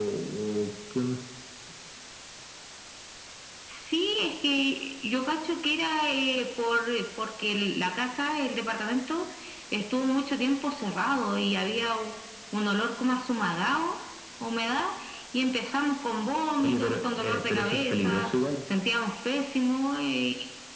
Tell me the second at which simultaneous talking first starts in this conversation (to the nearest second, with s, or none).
17 s